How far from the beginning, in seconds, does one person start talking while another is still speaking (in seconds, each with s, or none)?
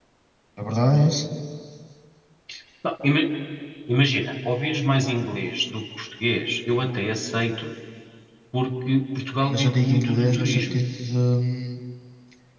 9.4 s